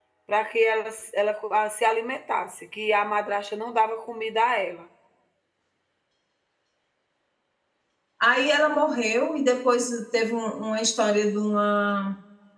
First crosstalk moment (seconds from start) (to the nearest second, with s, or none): none